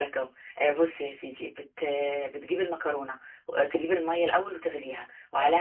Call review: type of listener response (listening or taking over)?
listening